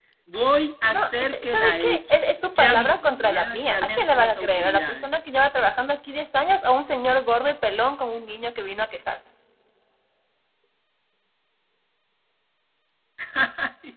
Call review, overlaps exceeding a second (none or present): present